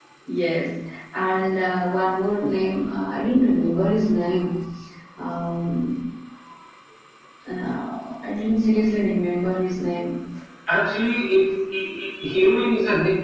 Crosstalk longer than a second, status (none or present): none